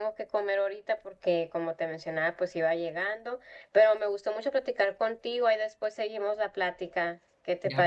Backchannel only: No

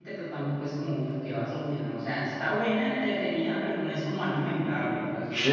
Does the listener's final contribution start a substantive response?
Yes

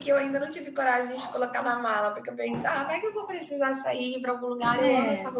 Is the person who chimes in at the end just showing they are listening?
Yes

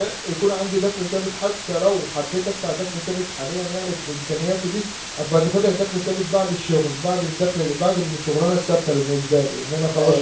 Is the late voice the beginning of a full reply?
Yes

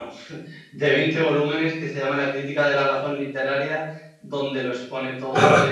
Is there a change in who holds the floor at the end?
Yes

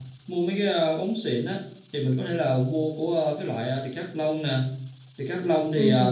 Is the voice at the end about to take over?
No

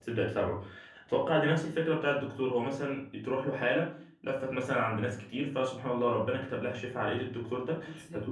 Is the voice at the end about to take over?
No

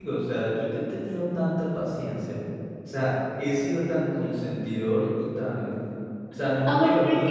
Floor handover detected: Yes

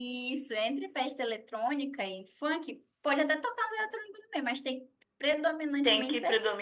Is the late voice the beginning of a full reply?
Yes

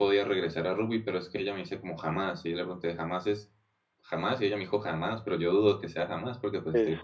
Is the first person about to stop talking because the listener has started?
Yes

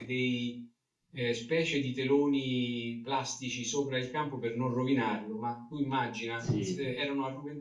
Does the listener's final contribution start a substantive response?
No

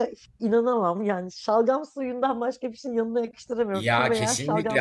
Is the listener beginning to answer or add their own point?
Yes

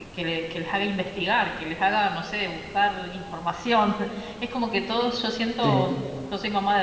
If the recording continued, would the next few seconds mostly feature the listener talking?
No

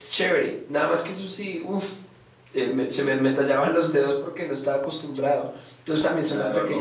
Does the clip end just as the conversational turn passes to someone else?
Yes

